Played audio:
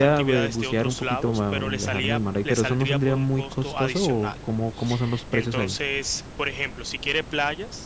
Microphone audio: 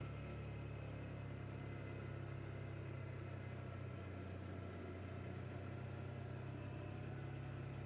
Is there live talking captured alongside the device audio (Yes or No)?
No